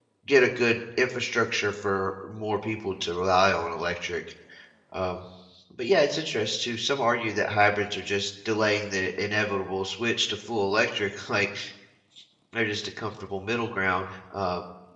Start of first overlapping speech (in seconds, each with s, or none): none